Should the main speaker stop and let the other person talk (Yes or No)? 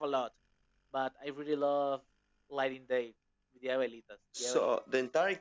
Yes